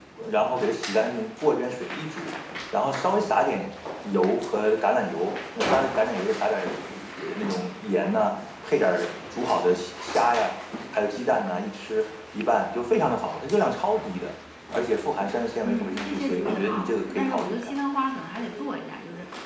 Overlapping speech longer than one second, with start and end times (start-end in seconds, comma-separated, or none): 15.6-17.7